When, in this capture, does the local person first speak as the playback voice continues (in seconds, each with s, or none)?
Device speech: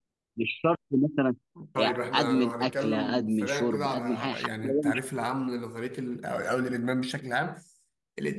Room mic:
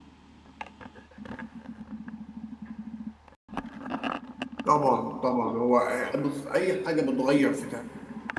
4.6 s